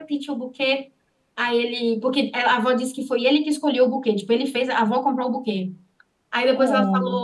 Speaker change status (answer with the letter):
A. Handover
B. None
B